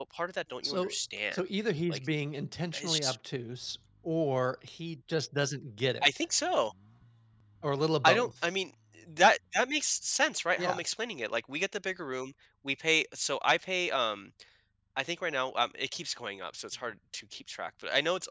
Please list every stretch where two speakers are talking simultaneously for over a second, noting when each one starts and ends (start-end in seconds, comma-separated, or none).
none